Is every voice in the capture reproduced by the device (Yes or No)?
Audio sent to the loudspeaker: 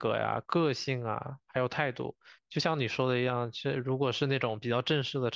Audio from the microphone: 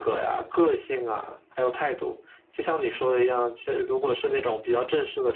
Yes